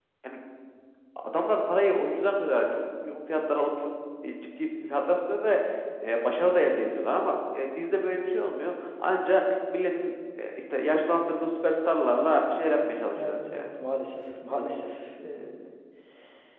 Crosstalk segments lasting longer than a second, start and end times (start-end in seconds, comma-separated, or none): none